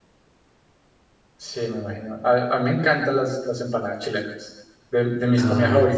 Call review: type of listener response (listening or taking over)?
listening